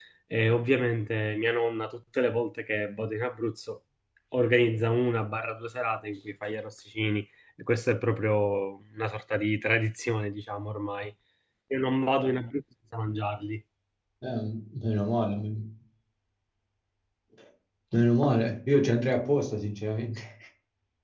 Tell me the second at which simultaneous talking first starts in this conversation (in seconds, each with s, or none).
none